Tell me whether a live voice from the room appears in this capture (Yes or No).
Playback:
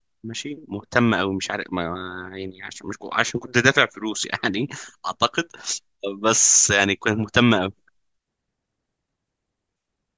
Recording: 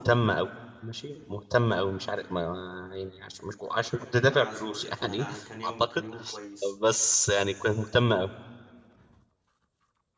Yes